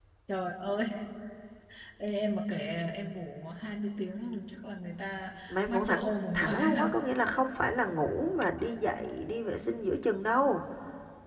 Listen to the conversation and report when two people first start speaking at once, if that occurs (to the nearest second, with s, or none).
5 s